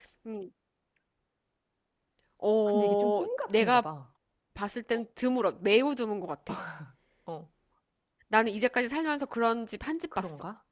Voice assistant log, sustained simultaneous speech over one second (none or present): present